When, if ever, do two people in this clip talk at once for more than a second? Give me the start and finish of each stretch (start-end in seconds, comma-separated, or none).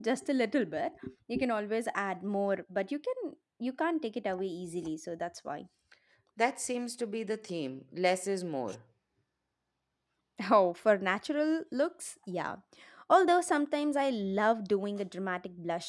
none